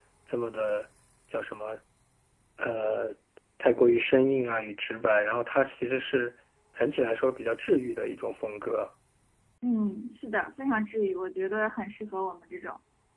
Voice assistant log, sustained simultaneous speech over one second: none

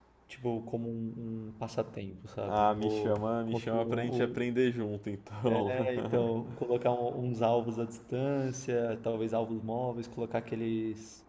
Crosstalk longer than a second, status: present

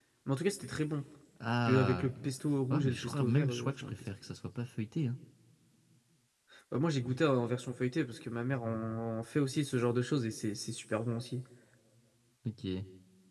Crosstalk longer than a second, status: present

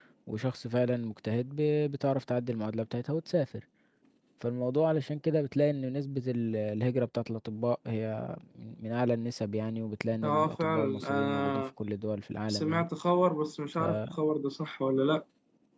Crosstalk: present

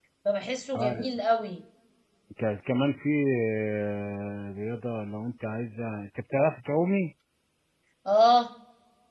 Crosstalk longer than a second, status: none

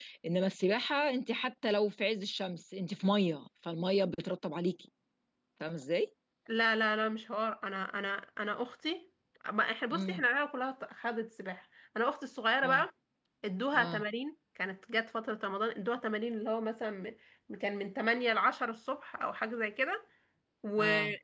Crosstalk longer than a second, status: none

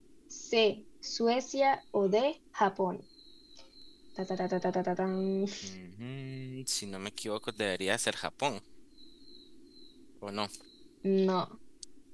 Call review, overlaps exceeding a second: none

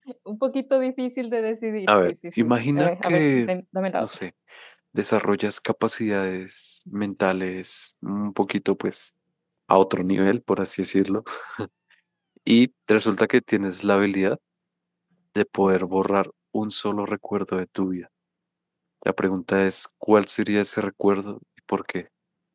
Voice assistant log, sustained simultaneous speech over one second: present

